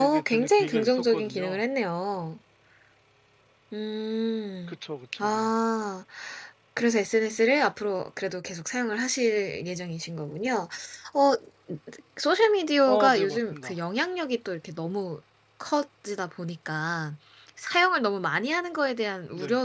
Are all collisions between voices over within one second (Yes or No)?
No